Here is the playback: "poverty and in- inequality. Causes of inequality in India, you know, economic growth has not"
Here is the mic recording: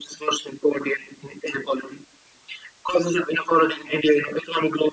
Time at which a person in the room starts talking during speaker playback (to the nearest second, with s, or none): none